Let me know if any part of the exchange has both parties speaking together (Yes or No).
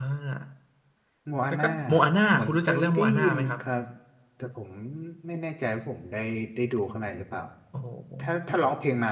Yes